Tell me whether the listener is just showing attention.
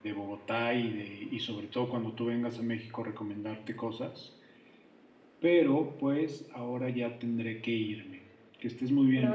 No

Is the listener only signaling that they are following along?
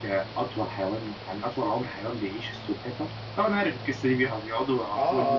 No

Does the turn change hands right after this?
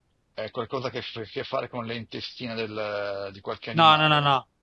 Yes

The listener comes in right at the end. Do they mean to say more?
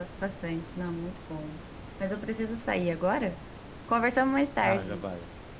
Yes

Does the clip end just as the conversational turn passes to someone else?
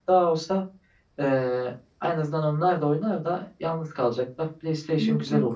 Yes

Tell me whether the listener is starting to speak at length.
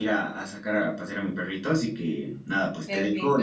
Yes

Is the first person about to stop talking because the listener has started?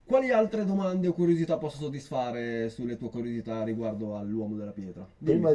Yes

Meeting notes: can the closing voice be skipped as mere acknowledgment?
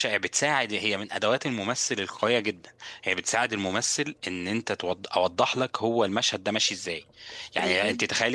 Yes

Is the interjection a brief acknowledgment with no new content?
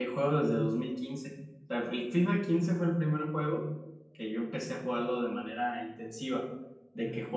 Yes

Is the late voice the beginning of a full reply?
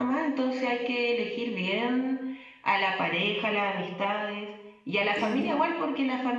No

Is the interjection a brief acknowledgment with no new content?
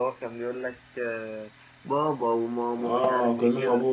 No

